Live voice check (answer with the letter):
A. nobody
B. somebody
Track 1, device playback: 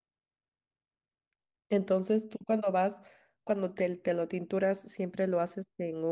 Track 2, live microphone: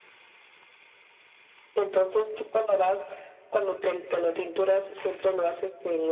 A